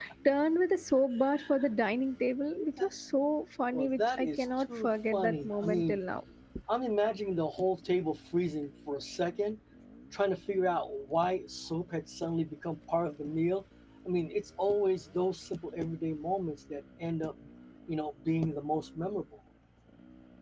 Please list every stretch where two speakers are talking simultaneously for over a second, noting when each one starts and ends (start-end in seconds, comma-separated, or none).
3.7-6.0